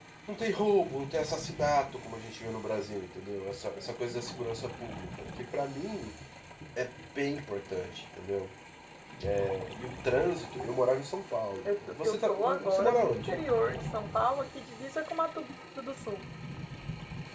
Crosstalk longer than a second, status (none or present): present